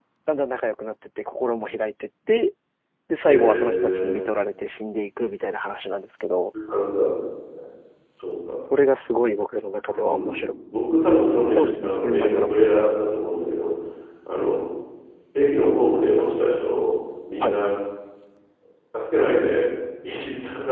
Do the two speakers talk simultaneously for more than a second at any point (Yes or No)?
Yes